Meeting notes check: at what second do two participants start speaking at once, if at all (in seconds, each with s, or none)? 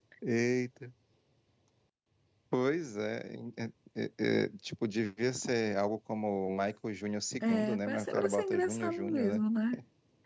7.4 s